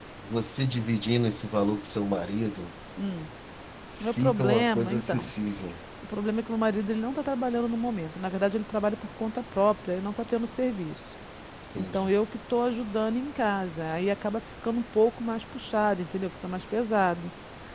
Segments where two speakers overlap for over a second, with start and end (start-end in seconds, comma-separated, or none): 4.1-5.3